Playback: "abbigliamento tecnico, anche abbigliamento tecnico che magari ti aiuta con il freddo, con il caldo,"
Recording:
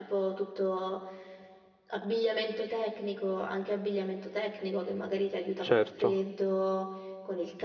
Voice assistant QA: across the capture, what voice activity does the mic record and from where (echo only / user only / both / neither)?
both